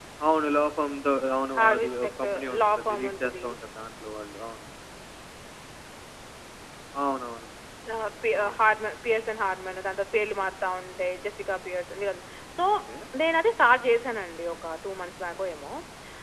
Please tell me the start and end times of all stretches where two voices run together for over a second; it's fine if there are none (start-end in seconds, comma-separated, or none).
1.5-3.5